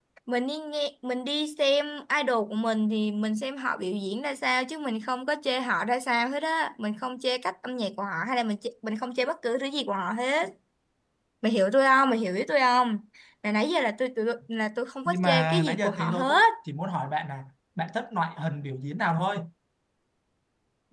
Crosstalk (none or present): present